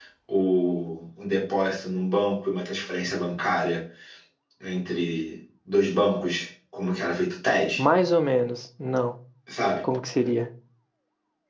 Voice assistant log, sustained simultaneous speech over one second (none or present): none